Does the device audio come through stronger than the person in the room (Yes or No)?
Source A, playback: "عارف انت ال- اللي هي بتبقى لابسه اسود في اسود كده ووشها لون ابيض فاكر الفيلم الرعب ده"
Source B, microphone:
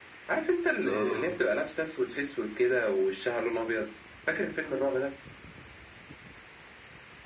Yes